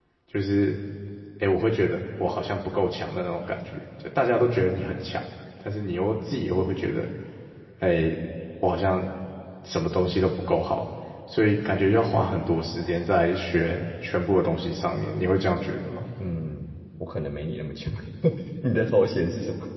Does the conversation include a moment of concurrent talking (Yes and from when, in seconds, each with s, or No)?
No